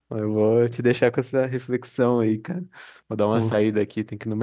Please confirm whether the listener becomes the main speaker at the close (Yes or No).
No